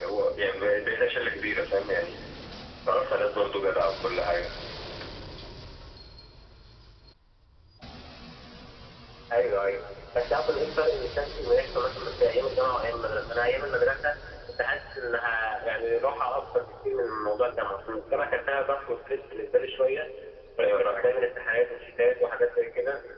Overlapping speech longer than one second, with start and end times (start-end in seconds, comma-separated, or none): none